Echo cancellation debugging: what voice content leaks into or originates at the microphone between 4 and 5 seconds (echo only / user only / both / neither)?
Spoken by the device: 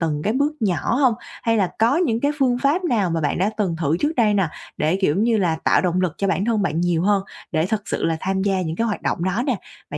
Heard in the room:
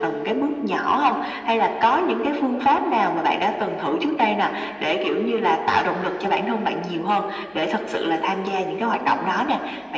echo only